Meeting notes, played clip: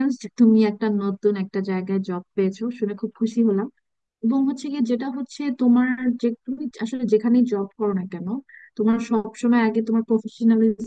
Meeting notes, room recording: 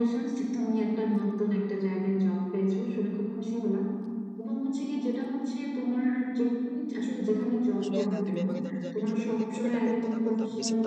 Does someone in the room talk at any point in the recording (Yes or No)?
Yes